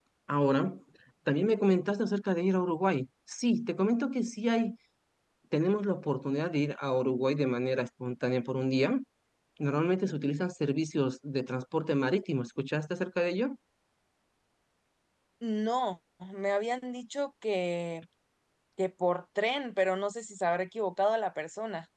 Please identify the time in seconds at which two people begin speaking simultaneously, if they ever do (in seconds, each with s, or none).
none